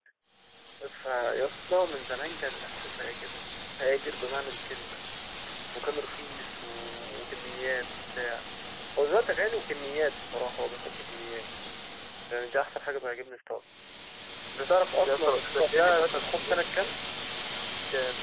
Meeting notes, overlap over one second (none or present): present